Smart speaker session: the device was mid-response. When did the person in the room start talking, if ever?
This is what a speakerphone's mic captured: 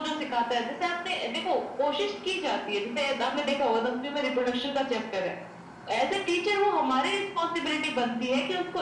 none

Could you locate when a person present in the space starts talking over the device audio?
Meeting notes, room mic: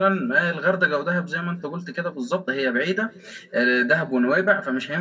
none

